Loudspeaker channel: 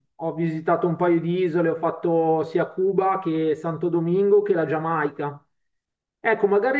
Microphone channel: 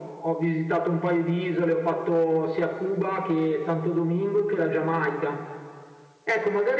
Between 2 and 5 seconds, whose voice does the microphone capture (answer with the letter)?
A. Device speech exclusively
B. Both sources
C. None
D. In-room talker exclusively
A